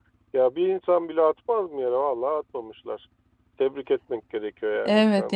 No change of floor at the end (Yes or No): No